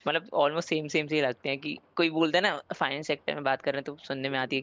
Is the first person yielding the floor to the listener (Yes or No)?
No